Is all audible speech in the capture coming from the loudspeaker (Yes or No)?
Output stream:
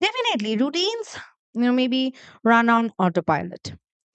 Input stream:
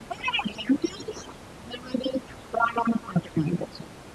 Yes